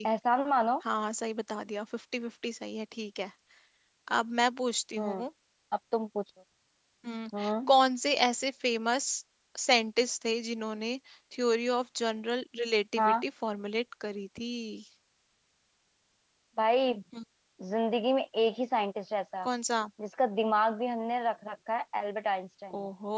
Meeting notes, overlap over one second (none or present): none